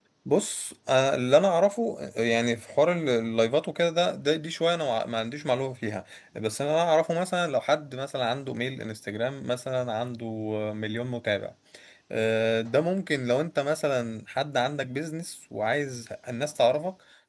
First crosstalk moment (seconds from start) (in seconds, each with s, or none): none